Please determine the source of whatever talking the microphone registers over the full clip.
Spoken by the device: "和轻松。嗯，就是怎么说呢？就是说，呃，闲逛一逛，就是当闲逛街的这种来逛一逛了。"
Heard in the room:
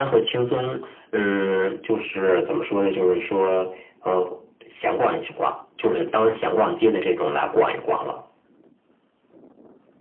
echo only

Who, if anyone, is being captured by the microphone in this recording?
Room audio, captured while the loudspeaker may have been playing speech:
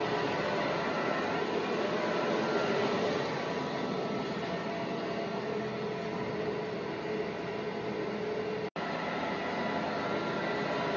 neither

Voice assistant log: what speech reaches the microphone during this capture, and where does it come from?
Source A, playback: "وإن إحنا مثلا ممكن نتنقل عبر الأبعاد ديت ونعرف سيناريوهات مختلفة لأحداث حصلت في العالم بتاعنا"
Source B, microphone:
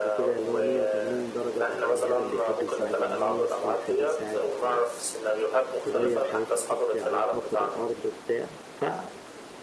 both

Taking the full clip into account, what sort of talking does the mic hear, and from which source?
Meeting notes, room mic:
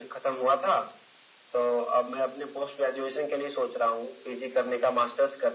echo only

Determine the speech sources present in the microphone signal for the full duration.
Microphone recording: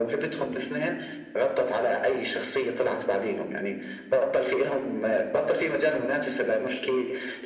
echo only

